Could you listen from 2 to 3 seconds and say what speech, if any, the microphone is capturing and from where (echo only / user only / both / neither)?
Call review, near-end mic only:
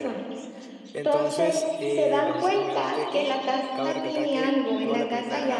both